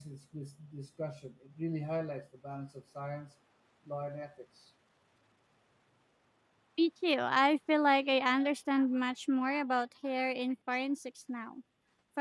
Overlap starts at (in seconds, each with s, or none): none